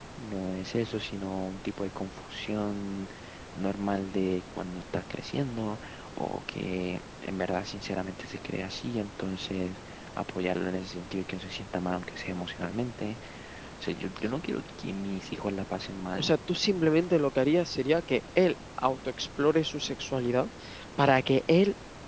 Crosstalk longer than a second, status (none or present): none